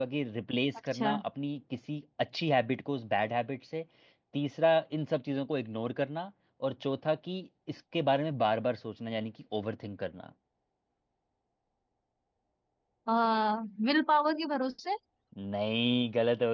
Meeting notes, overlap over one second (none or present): none